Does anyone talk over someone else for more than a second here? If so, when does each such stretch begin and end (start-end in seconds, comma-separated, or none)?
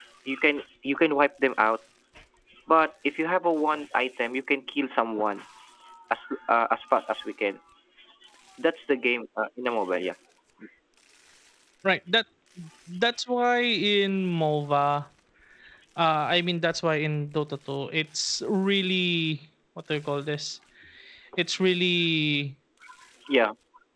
none